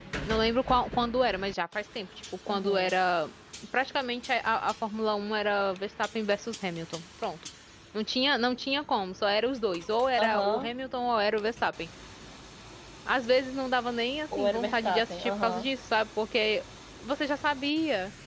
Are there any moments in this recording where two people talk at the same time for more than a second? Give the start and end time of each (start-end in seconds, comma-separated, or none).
14.4-15.7